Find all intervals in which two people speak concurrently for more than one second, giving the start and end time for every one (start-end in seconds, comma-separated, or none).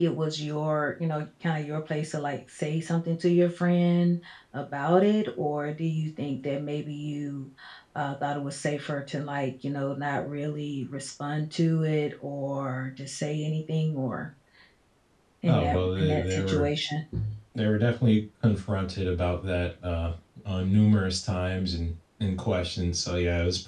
15.5-16.7